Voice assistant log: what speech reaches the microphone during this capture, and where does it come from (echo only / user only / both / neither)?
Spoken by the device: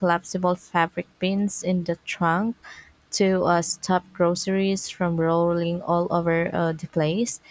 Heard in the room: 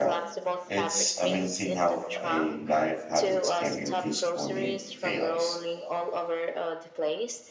both